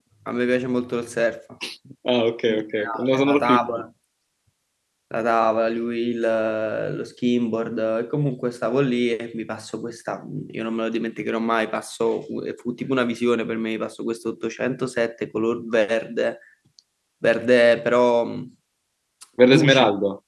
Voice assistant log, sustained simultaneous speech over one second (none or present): present